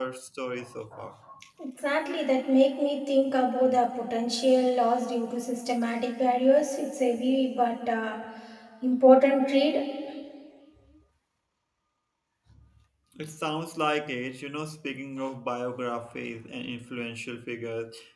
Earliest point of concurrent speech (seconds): none

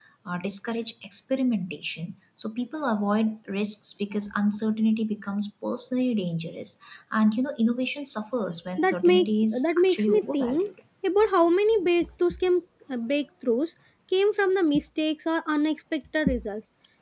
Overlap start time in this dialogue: 8.8 s

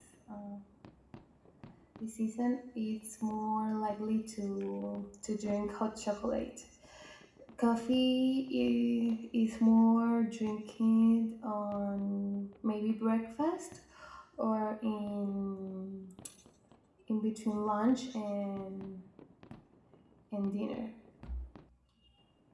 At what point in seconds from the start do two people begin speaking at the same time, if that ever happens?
none

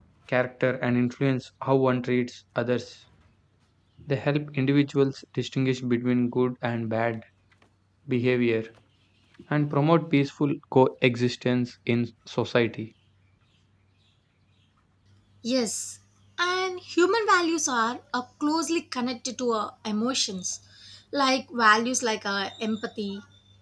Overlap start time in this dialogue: none

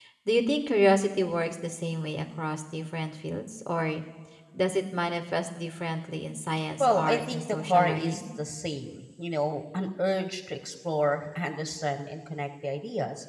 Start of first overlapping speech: 6.8 s

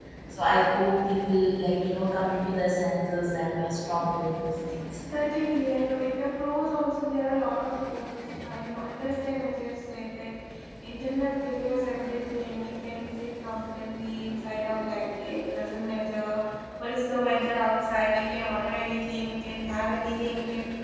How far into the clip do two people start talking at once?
none

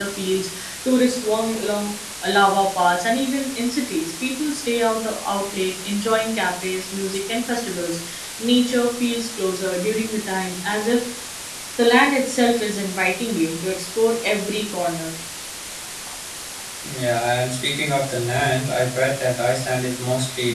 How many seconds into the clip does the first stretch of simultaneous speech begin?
none

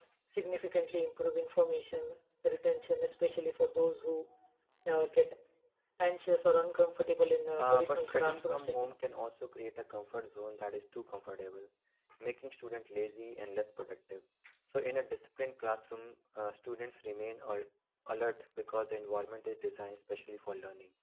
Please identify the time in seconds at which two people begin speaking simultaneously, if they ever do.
7.6 s

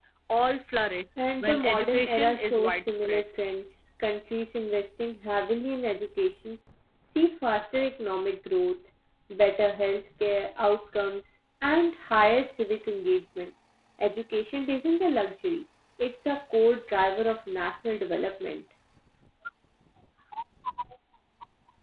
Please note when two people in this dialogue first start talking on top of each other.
1.4 s

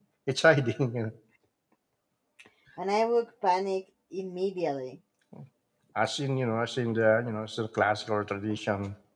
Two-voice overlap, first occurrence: none

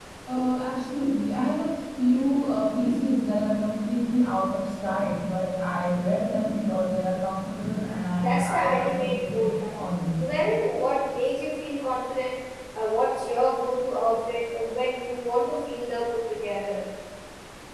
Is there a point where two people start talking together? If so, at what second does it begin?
8.2 s

